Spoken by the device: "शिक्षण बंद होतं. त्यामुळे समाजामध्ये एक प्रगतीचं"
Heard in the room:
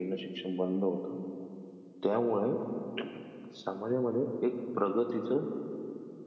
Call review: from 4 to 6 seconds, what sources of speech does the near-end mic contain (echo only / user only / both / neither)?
echo only